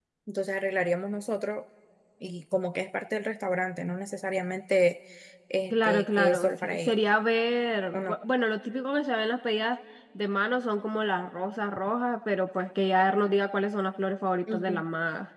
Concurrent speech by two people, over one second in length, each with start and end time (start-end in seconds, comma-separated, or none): 5.7-6.9